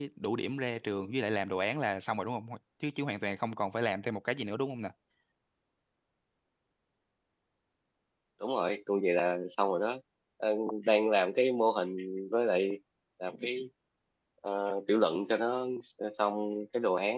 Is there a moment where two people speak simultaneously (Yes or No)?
No